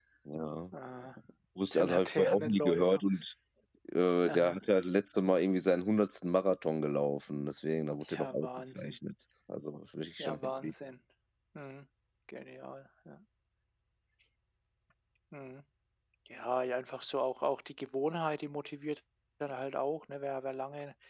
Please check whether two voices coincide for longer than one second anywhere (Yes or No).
Yes